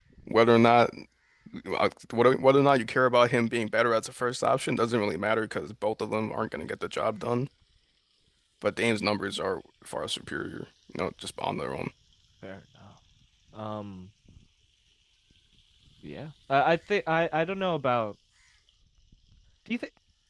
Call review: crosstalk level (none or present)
none